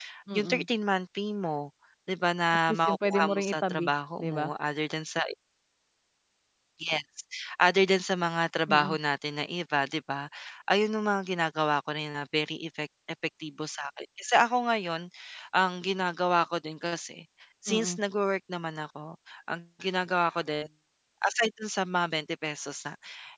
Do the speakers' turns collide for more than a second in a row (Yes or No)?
Yes